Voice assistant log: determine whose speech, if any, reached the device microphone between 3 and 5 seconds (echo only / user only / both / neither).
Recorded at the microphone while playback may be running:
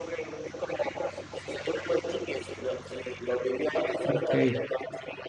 both